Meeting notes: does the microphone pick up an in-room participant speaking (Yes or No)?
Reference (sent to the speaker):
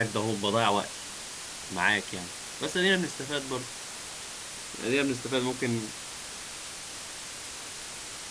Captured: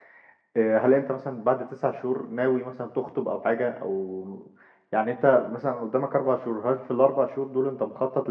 Yes